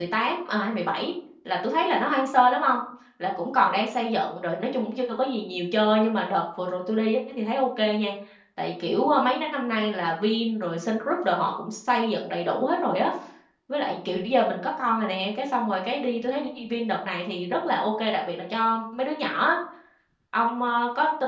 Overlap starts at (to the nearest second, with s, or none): none